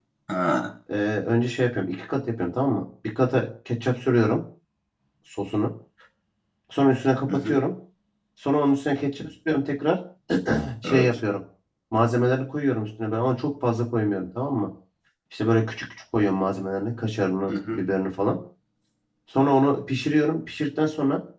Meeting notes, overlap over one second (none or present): none